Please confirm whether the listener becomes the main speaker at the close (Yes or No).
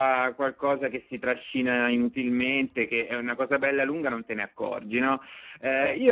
No